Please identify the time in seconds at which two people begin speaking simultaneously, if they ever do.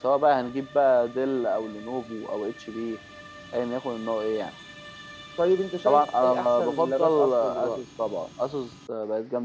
5.8 s

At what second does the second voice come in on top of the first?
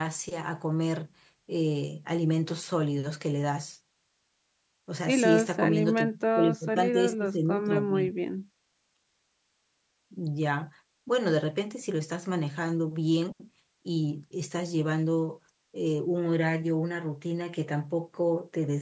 5.0 s

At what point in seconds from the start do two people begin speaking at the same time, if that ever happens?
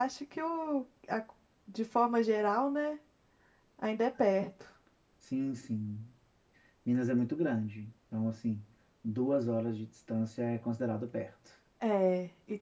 none

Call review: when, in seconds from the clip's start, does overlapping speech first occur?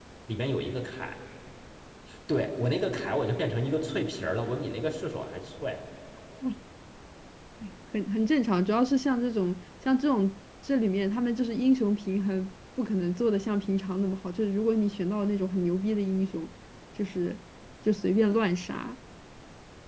none

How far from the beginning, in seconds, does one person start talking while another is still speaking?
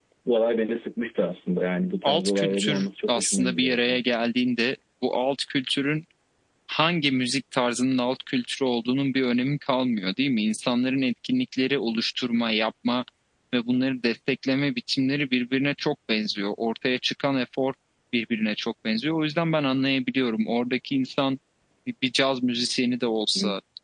2.0 s

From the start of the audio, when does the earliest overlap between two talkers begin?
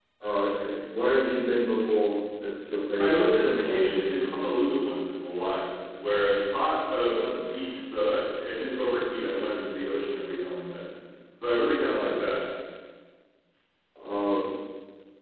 3.0 s

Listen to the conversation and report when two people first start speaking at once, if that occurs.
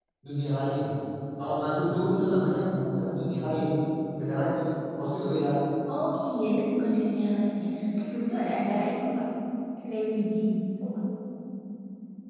none

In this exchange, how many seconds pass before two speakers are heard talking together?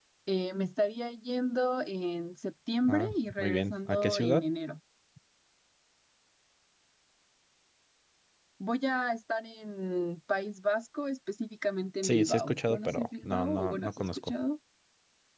2.9 s

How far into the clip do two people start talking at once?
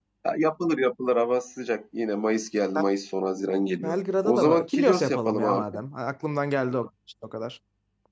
3.8 s

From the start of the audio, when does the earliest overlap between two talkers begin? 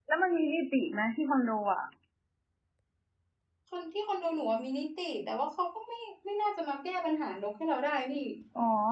none

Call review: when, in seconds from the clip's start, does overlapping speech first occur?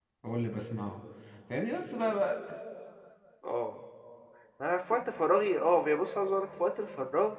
none

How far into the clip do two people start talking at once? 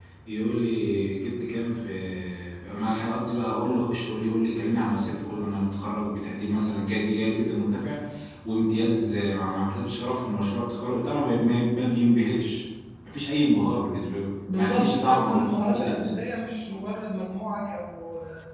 14.5 s

